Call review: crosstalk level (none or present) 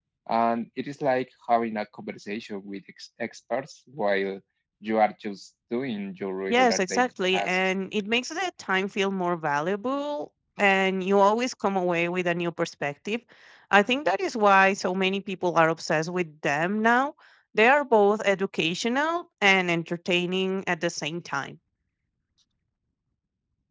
present